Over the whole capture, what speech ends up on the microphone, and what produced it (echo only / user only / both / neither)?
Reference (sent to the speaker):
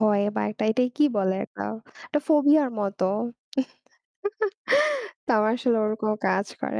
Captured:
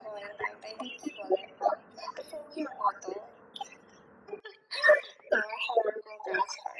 echo only